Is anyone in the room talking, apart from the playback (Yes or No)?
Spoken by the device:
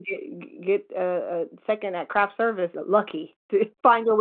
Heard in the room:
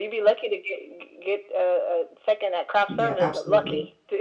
Yes